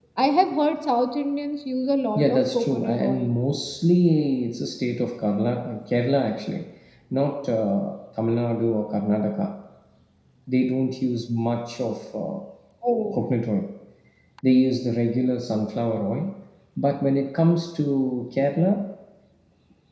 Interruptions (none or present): present